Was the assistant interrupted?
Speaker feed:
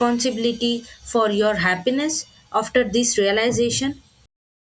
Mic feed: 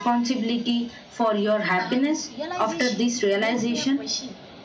Yes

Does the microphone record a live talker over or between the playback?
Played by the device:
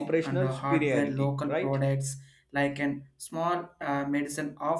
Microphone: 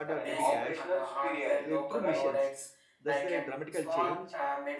Yes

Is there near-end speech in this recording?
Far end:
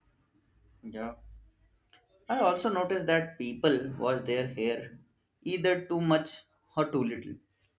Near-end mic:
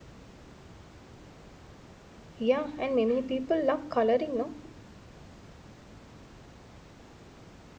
Yes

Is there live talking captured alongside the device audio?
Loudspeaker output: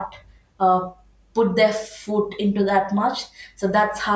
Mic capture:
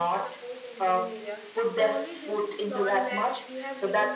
Yes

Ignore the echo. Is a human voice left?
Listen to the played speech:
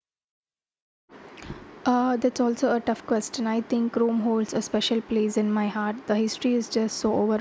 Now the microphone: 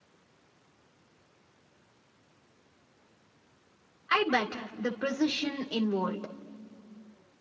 Yes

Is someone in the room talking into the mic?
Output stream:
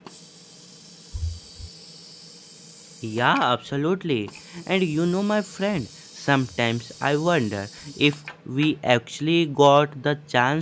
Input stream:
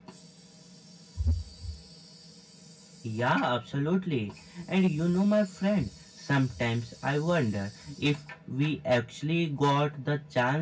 No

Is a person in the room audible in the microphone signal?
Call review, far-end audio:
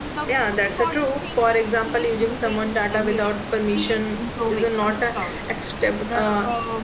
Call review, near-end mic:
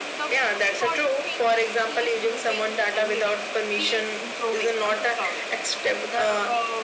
No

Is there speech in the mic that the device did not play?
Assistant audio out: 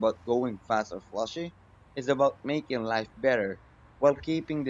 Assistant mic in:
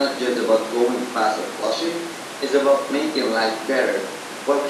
No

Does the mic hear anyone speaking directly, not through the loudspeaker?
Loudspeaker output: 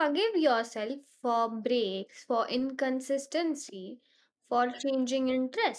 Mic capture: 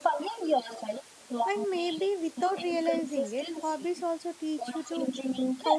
Yes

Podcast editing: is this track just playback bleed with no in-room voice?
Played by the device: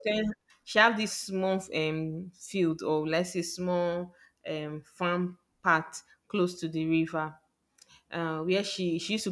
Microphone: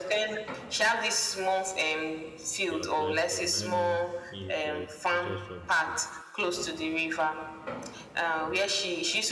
No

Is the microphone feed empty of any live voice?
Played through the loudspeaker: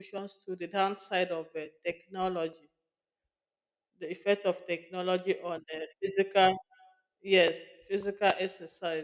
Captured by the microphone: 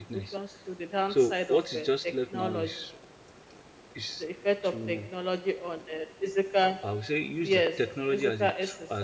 No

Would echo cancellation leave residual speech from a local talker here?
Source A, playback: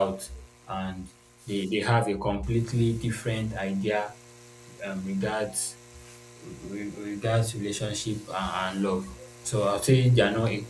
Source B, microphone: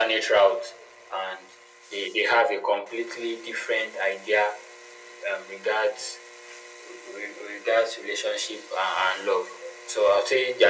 No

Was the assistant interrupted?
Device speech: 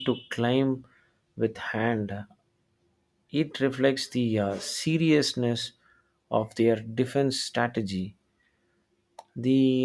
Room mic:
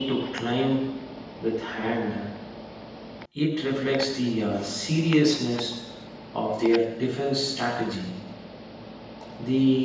No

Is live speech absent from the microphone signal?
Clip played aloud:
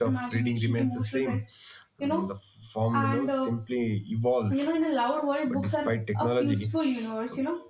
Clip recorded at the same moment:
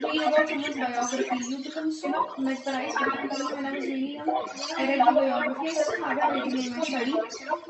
No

